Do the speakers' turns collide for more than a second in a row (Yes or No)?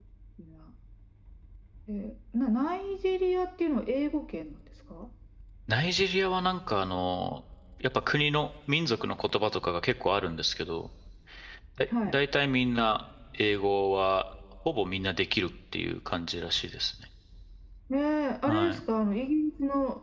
No